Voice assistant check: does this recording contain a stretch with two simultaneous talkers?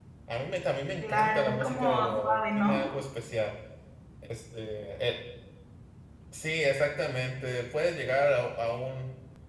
Yes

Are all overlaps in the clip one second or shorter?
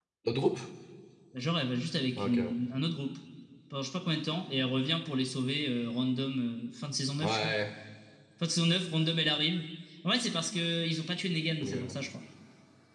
Yes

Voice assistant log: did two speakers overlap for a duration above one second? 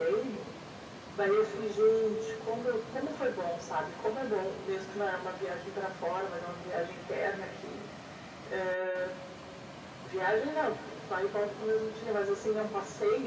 No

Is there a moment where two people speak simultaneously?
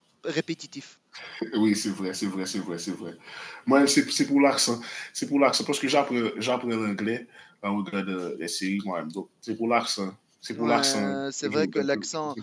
Yes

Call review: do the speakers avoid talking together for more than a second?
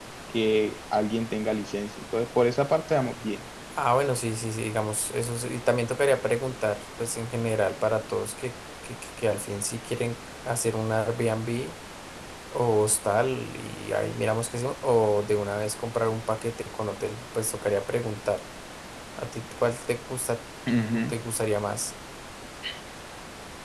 Yes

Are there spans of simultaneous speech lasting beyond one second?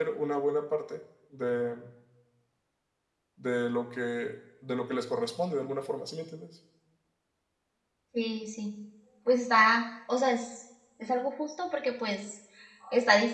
No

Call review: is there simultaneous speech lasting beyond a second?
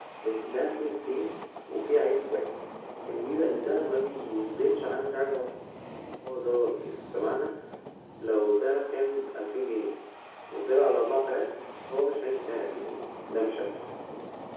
No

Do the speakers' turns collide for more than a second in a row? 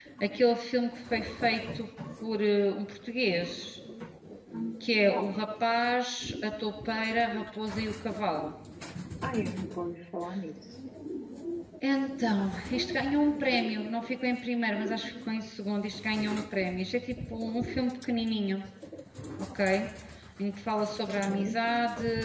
No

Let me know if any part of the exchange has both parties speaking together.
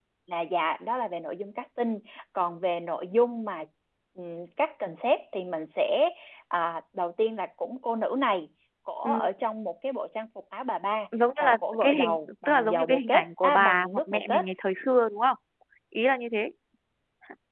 Yes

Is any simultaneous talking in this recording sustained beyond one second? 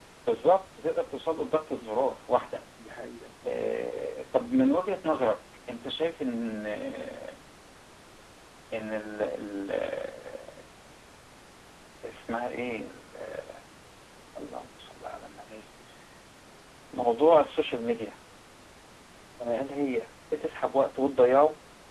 No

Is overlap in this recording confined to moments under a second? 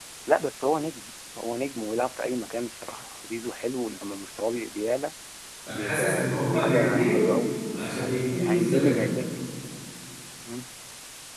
No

